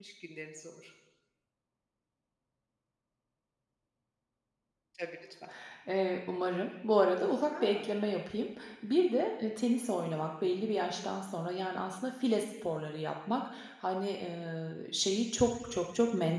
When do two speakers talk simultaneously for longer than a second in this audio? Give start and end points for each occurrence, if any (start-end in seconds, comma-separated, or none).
none